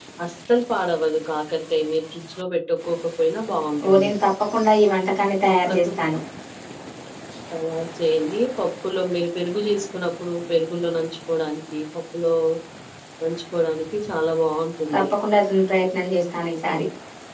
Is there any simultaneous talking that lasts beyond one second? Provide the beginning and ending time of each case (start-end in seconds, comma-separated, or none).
none